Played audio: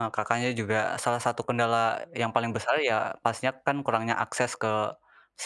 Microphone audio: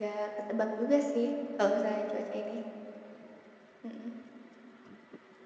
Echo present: No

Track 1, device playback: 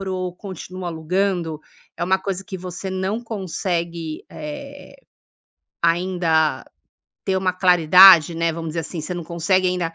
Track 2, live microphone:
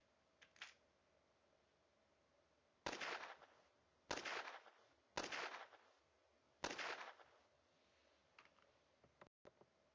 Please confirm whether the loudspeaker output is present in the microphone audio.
No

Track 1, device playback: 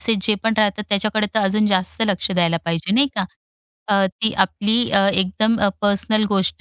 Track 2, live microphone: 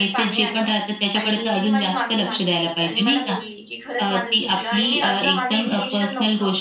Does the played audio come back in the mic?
Yes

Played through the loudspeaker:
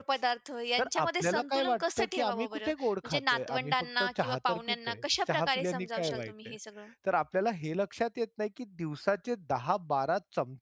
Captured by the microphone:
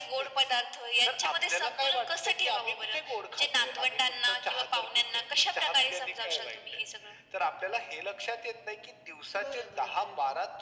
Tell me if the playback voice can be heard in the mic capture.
Yes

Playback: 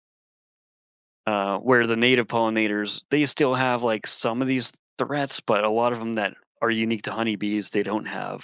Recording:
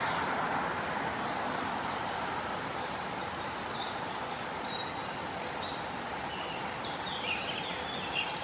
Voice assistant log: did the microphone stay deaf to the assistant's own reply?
Yes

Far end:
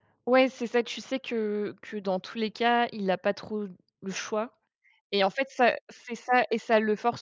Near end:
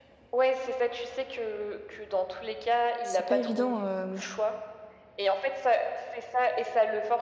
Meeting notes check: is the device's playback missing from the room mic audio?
No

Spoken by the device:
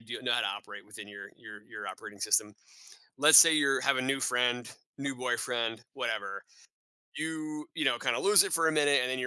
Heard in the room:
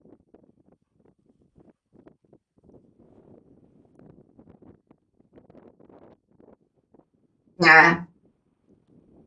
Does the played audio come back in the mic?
No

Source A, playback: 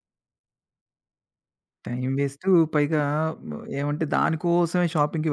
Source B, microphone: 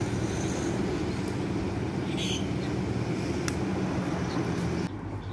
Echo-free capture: Yes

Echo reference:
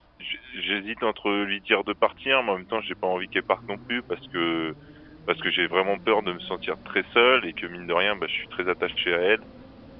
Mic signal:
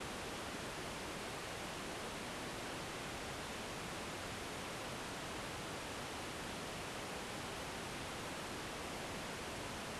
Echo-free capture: Yes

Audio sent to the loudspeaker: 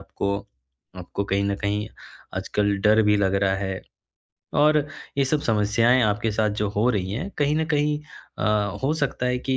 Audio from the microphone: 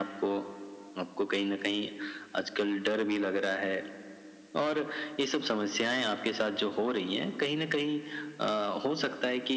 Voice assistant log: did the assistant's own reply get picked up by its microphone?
Yes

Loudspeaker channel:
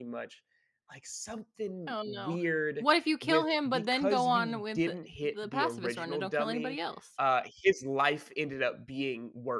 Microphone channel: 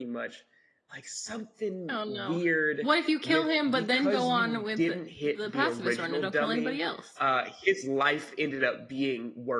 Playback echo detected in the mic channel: Yes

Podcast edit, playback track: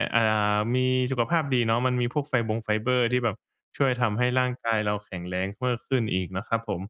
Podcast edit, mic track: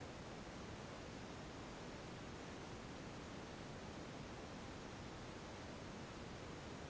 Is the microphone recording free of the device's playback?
Yes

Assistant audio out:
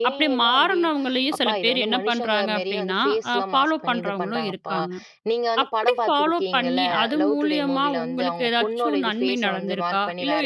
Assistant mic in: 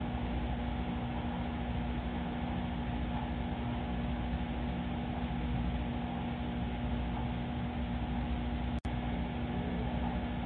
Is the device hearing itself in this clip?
No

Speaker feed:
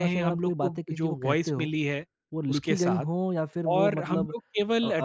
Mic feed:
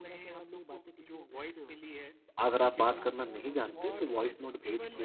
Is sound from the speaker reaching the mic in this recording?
Yes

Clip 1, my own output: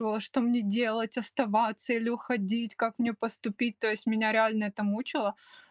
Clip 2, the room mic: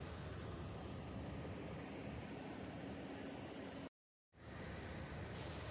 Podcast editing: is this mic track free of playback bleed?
Yes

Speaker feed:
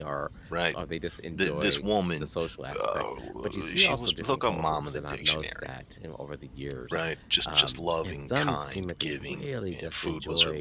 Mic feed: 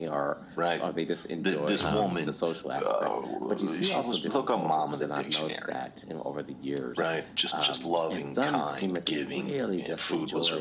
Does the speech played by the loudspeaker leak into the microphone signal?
Yes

